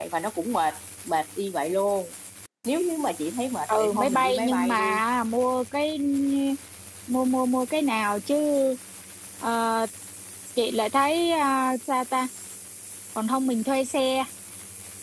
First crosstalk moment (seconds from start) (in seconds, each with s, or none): 3.7 s